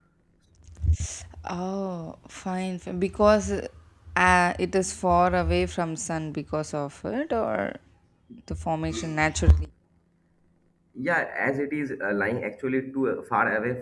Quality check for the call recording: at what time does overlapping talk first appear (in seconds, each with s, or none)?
none